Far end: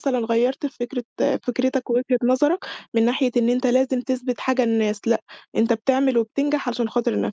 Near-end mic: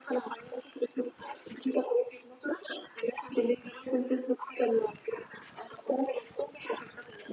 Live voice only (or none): none